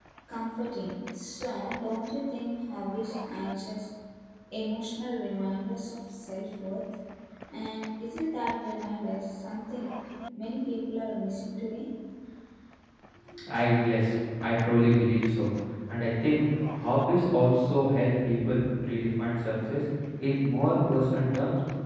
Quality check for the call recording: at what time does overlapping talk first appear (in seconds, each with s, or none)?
none